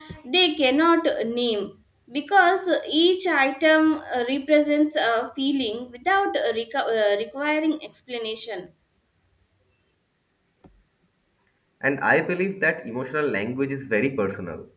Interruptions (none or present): none